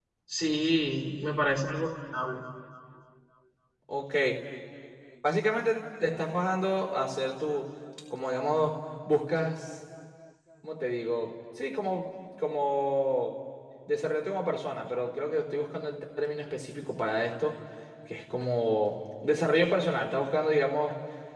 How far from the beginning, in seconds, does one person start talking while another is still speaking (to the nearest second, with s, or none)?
none